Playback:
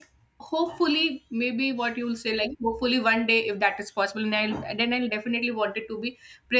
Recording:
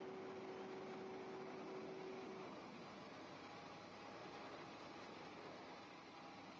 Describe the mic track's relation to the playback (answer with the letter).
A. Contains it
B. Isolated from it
B